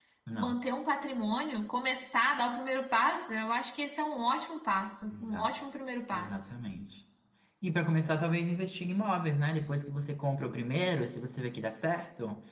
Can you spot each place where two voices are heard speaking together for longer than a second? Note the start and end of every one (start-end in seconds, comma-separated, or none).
none